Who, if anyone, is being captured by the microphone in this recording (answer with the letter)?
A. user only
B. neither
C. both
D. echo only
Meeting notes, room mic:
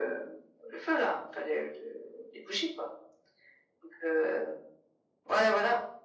D